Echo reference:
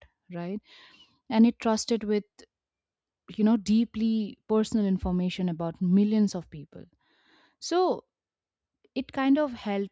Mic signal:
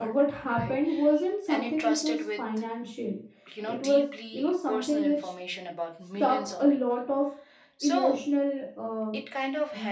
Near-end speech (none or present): present